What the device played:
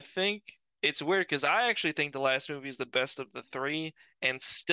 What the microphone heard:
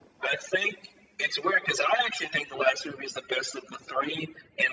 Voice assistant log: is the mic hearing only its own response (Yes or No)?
Yes